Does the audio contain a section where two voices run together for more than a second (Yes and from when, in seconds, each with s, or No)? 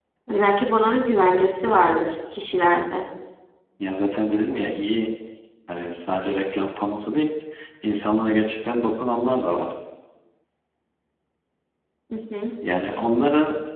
No